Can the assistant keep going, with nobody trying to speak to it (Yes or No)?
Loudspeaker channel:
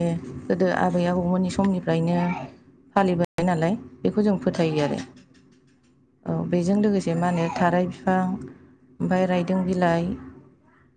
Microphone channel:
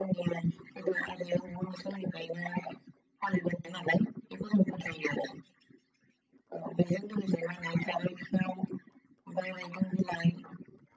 Yes